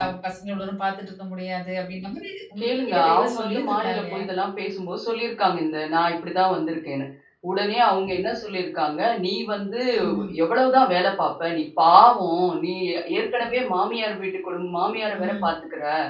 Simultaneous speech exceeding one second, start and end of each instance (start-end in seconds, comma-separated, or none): 2.6-4.2